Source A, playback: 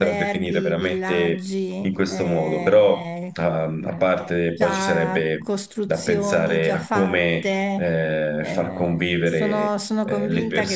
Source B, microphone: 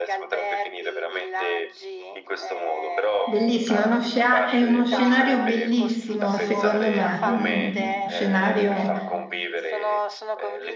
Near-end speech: present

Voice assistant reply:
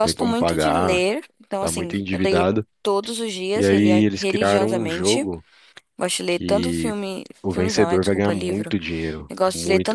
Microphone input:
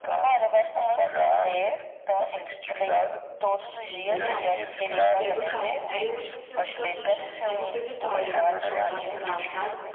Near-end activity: present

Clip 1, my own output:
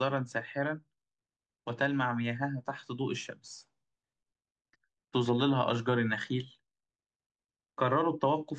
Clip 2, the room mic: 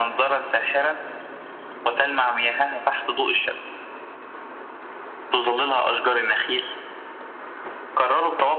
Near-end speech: none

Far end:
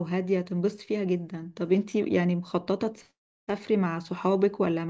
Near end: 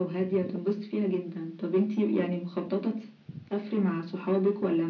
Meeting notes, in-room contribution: none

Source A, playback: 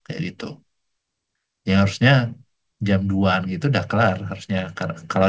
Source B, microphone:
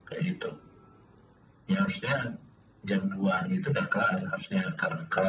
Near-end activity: none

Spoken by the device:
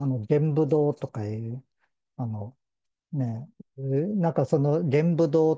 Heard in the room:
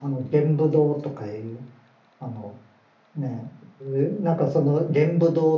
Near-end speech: none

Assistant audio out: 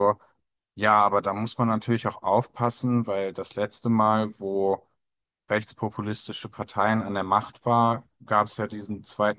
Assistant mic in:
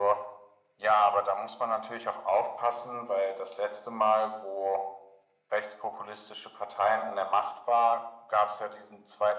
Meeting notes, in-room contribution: none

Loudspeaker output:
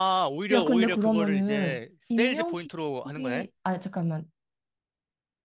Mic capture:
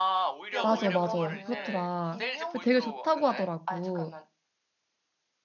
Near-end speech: present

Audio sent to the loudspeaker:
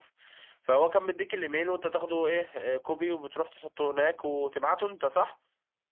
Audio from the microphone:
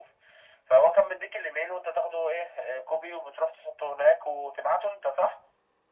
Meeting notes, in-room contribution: none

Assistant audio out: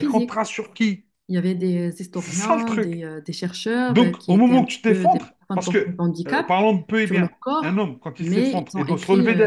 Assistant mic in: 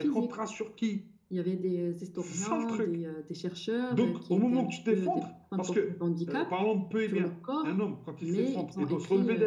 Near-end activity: none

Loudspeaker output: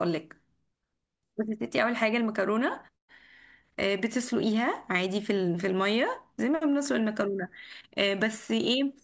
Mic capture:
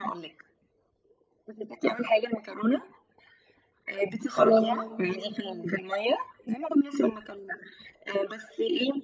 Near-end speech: present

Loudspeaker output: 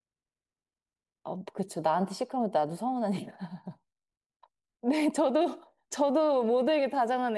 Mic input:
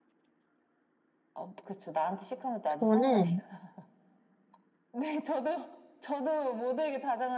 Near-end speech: present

